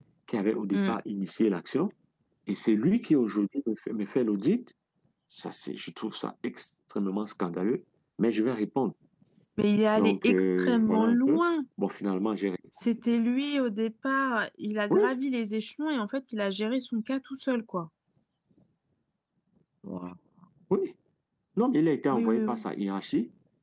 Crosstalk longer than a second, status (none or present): present